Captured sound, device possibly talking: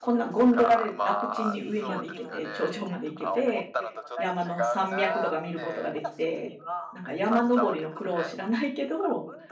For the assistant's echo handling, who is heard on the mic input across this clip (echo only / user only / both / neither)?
both